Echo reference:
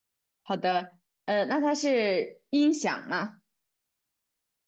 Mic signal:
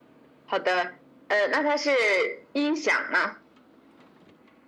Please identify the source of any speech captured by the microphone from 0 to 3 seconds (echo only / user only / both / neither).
echo only